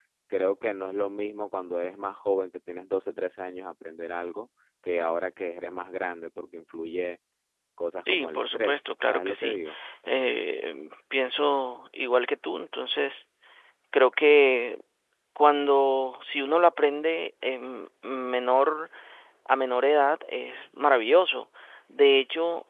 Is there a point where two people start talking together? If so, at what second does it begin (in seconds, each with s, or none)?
8.1 s